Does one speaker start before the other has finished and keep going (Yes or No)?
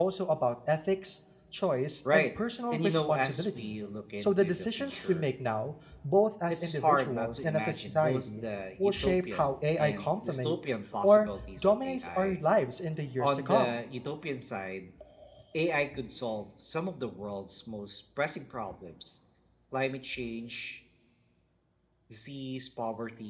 Yes